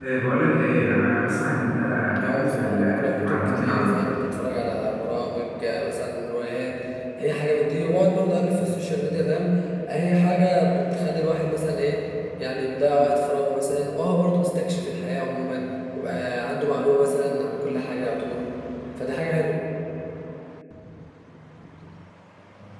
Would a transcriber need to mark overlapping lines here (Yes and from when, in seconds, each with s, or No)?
Yes, from 2.2 s